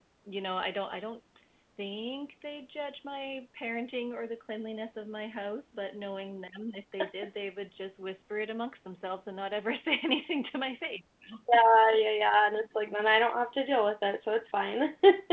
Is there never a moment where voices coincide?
Yes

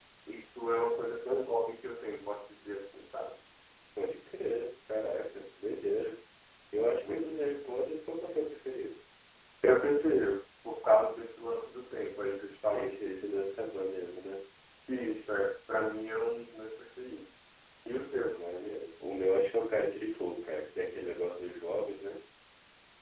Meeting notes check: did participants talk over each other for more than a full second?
No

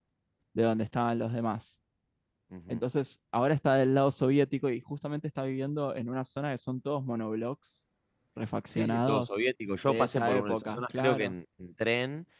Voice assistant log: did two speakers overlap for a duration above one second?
Yes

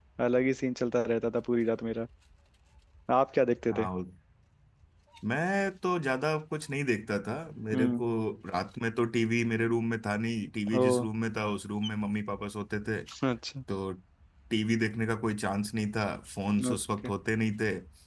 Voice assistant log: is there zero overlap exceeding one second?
Yes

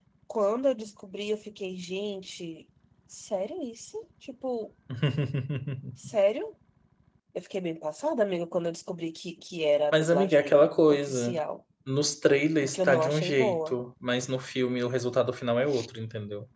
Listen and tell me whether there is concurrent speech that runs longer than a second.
Yes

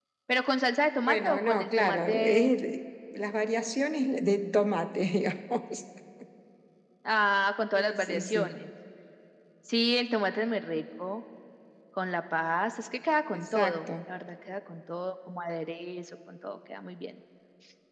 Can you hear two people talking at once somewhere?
Yes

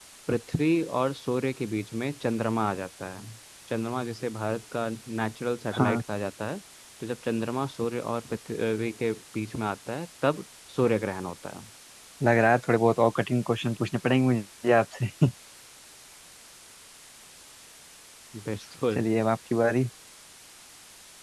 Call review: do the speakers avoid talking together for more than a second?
Yes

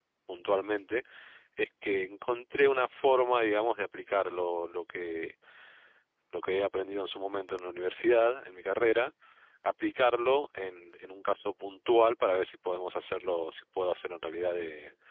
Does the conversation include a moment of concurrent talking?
No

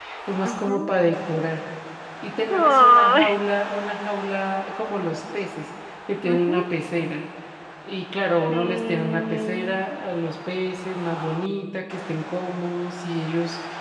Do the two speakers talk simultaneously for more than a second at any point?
Yes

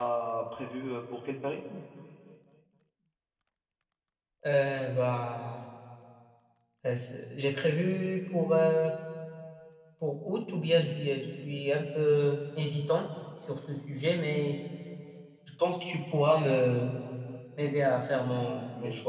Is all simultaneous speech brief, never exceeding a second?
Yes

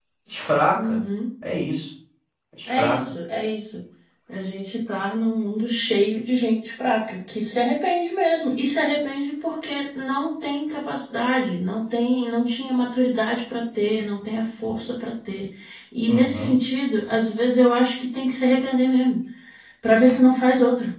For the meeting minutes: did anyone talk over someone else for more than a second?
No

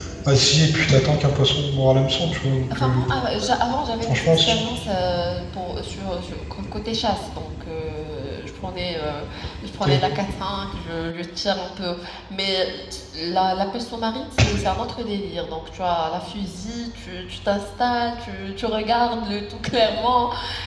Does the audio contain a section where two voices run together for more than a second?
No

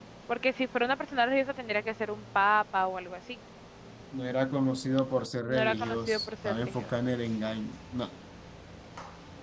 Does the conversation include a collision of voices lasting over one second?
Yes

